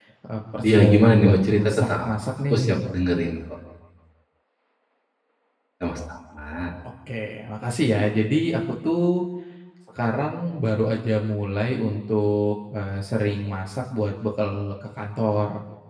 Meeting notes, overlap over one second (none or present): present